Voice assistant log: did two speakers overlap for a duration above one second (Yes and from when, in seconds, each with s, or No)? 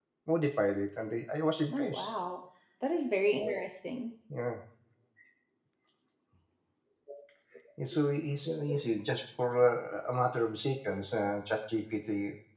No